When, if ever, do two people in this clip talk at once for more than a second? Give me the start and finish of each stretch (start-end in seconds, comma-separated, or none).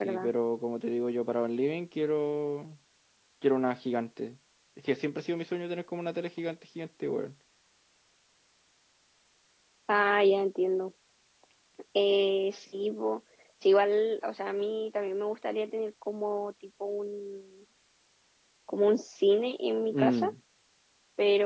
none